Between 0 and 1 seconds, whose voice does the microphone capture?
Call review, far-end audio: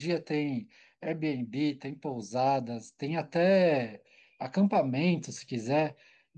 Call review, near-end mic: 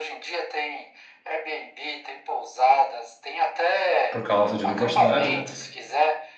echo only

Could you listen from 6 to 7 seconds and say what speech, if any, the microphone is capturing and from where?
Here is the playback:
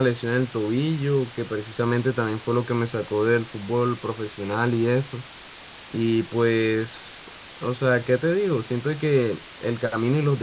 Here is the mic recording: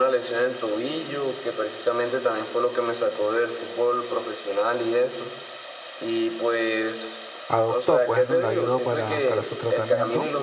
echo only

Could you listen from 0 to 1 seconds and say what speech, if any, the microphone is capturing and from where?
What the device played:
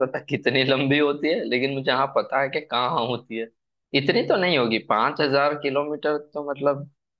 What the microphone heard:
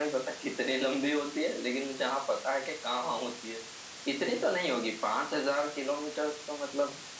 echo only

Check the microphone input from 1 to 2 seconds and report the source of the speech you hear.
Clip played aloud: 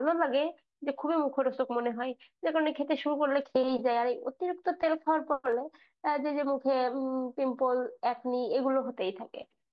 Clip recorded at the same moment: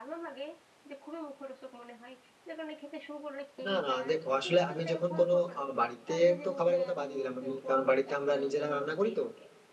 echo only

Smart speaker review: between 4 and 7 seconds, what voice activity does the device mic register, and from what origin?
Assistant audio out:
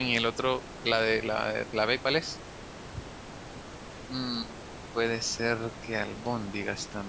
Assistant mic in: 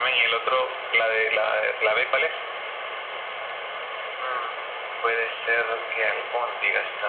echo only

